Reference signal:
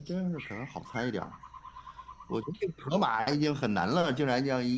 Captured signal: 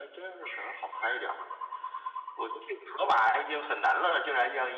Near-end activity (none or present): none